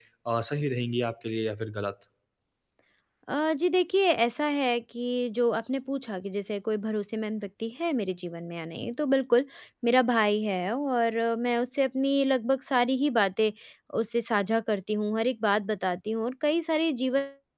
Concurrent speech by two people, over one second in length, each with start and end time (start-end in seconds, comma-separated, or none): none